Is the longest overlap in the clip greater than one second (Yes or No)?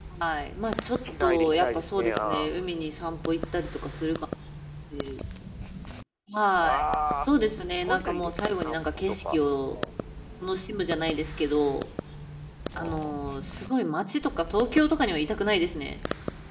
Yes